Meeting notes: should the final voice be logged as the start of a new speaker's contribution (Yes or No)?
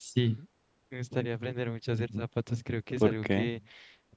No